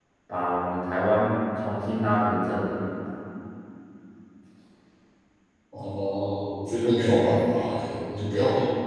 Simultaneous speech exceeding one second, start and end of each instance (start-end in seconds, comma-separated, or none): none